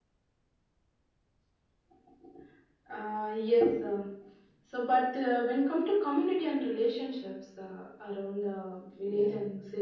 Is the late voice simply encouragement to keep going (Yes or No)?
Yes